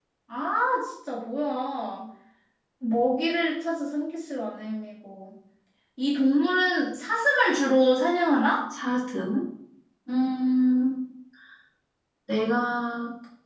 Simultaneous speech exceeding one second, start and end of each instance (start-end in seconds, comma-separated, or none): none